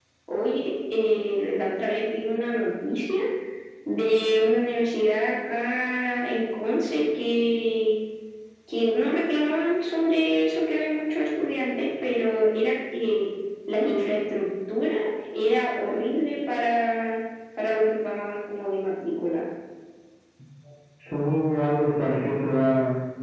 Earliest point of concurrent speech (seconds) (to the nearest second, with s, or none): none